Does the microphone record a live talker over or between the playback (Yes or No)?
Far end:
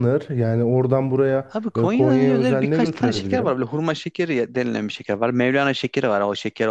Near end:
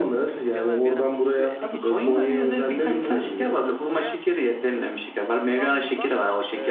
Yes